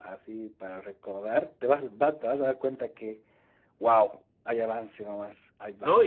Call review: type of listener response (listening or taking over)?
taking over